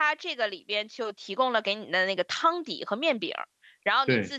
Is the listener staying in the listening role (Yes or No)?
Yes